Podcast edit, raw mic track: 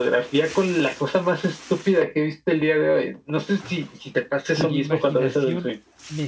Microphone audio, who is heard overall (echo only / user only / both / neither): both